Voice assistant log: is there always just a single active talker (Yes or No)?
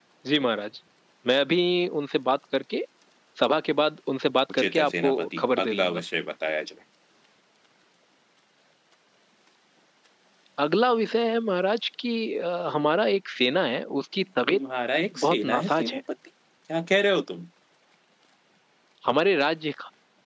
No